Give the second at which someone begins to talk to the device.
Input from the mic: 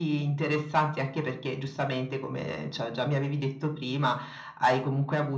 none

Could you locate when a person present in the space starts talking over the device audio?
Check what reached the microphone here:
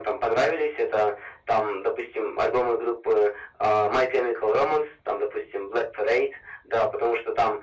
none

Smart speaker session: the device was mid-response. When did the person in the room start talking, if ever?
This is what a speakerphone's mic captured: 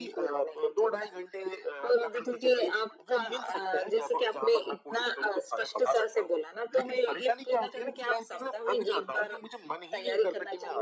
none

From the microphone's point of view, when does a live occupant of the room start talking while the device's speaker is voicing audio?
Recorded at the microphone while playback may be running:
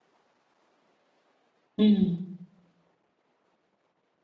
2 s

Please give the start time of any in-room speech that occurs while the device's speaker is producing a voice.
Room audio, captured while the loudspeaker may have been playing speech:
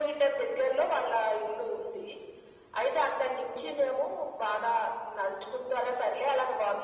none

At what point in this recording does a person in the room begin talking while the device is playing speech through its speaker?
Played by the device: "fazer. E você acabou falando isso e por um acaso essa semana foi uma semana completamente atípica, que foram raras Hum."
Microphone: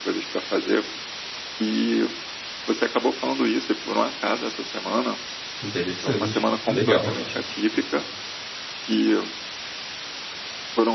6 s

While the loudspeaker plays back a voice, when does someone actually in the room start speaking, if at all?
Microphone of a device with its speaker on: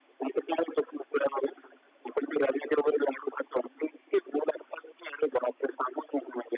none

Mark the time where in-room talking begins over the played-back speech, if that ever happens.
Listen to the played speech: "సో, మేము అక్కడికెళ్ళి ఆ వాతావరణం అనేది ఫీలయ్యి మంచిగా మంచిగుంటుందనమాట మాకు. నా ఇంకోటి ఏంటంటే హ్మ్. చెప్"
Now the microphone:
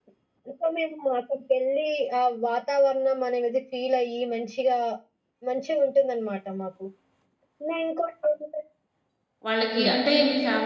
9 s

